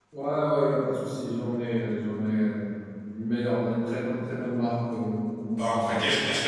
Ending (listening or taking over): taking over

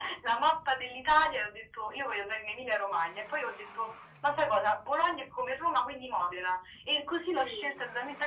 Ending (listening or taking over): listening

